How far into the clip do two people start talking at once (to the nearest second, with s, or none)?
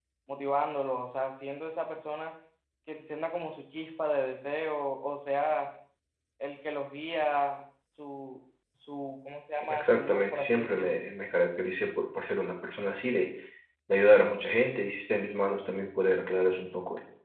10 s